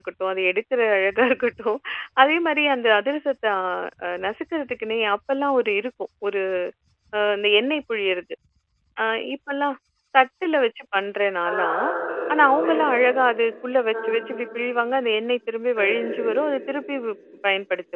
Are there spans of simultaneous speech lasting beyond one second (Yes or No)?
No